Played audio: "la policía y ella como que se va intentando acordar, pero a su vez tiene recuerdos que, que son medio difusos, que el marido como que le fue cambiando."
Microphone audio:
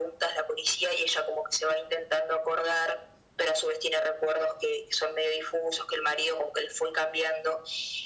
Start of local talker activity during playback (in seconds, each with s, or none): none